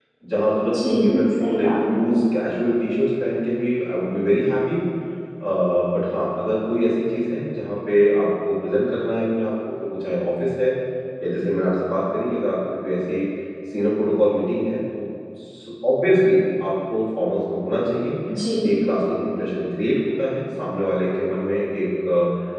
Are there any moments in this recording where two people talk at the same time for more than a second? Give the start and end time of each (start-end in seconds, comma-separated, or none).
0.6-1.9